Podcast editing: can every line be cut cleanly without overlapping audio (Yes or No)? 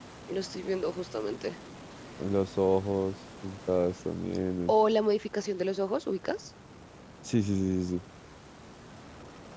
Yes